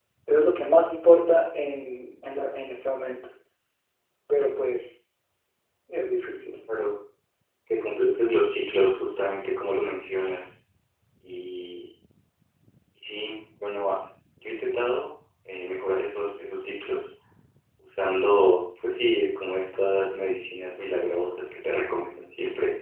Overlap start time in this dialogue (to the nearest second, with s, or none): none